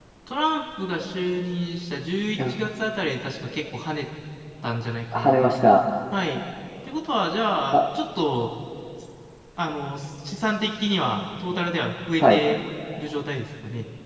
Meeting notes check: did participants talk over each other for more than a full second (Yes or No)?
No